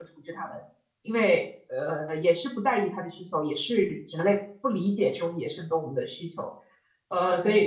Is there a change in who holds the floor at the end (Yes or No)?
No